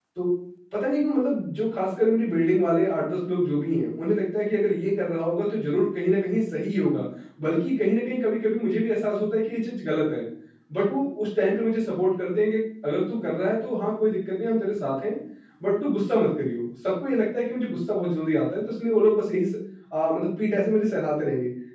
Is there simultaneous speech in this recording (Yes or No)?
No